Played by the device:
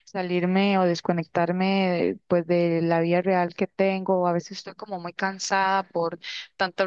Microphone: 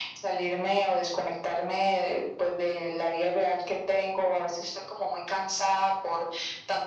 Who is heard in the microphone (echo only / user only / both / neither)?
echo only